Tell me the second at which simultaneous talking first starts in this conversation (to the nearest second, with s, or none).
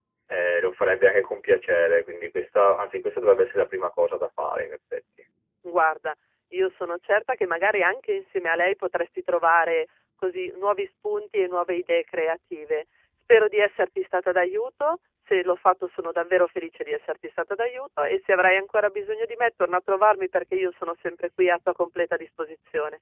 none